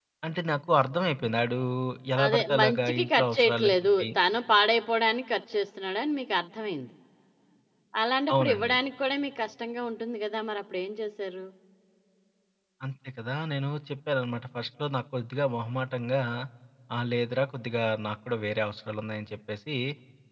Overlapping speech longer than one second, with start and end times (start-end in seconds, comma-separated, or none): 2.2-4.1